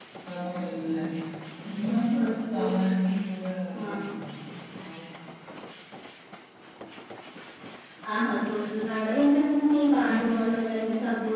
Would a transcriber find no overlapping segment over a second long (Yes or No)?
Yes